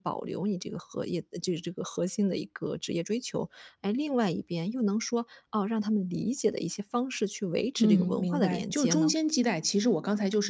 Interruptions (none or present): present